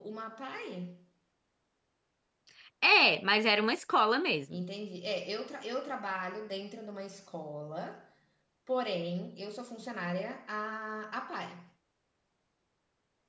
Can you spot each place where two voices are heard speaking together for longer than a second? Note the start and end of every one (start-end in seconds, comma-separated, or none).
none